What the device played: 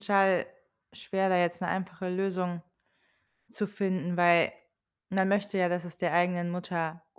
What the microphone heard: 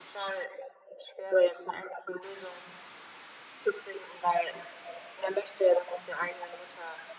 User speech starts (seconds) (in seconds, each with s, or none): none